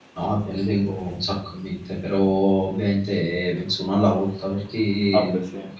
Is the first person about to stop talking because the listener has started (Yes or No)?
No